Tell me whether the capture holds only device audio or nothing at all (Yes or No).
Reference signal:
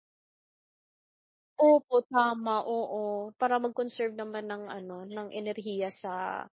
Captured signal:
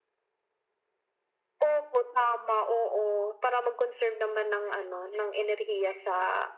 Yes